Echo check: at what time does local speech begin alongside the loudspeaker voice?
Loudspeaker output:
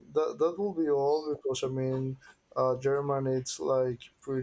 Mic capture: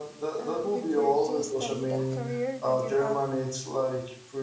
0 s

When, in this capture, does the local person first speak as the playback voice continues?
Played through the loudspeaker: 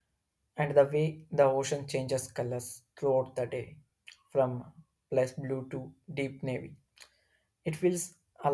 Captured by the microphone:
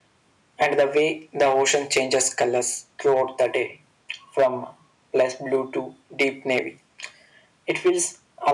none

